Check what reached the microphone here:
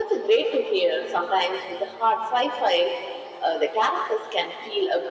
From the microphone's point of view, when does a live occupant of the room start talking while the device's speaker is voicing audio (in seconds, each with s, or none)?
none